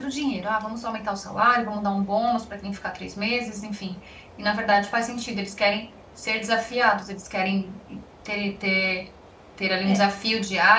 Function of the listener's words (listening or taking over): listening